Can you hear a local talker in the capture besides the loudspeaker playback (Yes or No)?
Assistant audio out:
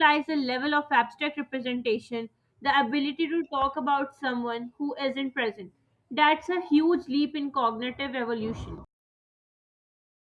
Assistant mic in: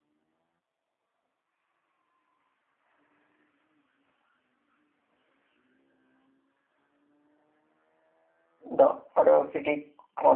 Yes